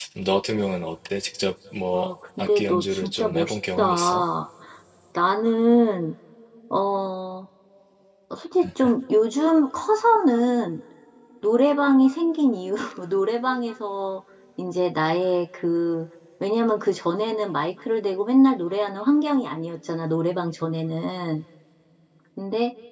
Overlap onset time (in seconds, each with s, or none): 1.9 s